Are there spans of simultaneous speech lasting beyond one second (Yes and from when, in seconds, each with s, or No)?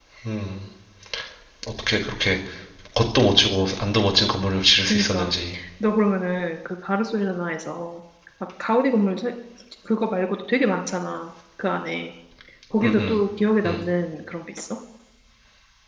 No